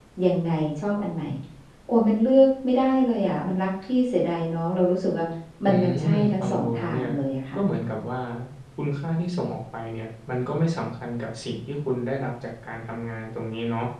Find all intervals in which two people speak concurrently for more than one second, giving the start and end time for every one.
5.7-7.1

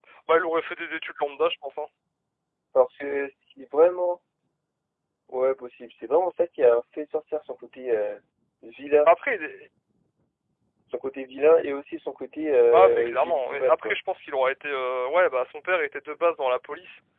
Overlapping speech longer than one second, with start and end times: 12.7-14.0

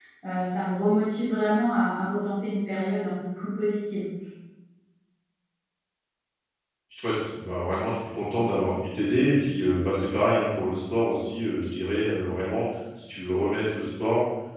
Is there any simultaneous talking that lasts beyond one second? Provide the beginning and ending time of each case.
none

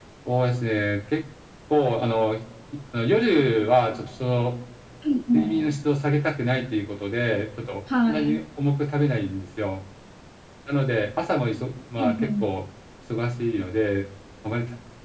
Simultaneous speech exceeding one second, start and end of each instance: none

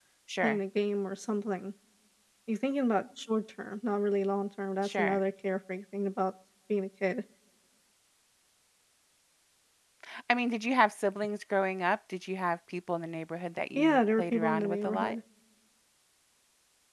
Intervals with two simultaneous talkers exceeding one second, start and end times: 13.8-15.2

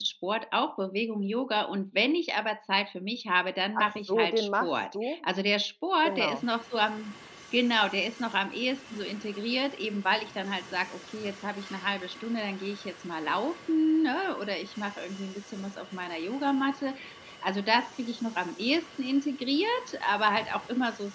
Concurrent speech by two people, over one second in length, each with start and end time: 3.7-5.3

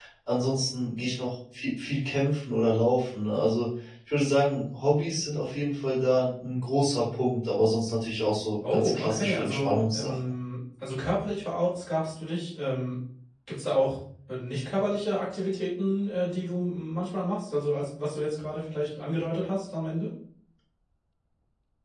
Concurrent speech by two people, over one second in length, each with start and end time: 8.7-10.1

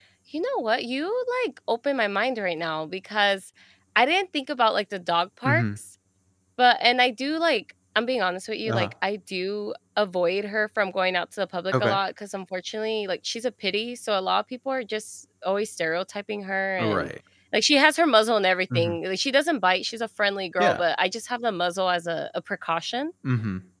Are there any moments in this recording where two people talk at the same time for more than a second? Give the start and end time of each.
none

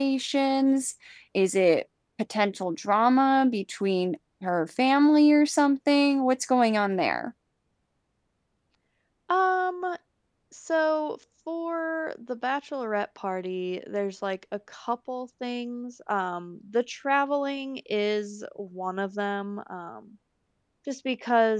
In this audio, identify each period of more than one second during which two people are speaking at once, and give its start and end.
none

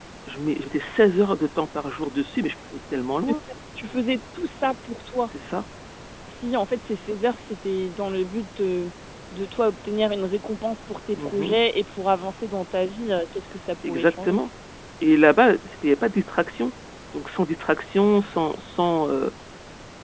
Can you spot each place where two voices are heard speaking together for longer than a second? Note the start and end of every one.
none

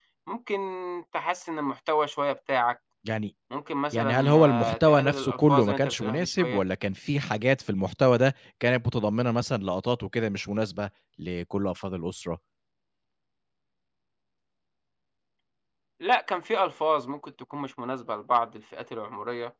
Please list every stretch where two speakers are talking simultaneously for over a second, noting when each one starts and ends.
3.9-6.6

